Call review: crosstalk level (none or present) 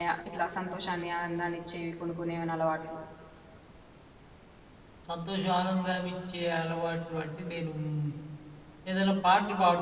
none